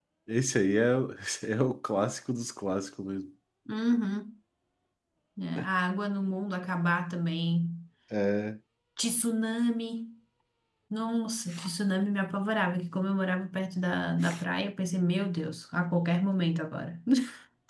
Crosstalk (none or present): none